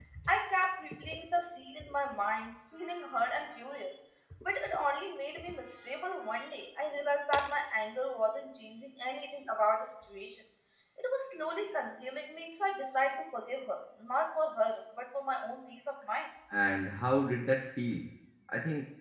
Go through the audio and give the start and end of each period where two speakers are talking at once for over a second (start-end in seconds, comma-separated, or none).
none